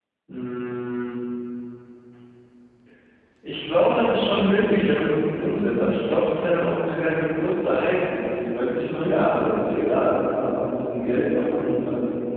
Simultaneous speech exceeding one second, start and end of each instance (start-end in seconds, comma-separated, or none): none